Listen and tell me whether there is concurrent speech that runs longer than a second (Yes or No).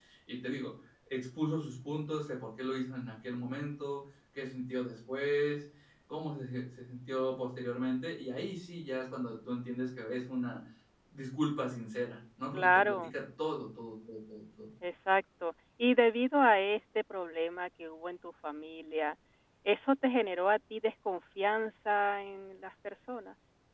No